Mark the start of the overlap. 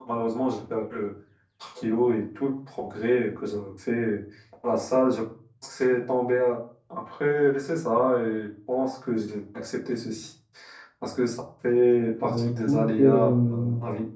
12 s

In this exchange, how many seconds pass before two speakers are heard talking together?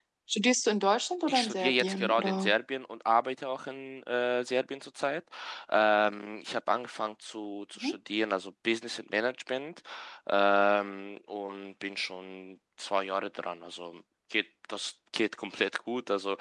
1 s

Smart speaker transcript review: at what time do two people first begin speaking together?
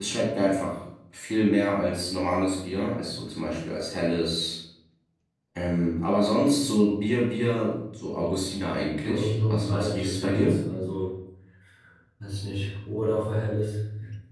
9 s

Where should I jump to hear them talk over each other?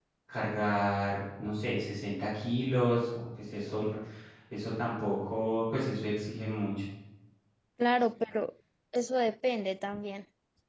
none

